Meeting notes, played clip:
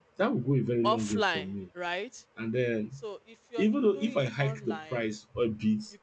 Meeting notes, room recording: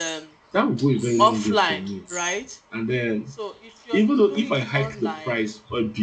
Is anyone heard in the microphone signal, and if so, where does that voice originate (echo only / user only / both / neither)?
echo only